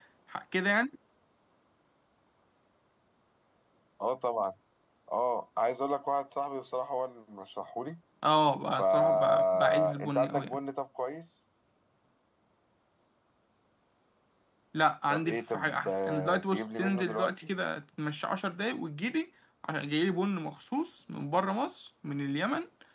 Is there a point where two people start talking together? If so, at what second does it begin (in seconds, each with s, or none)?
8.8 s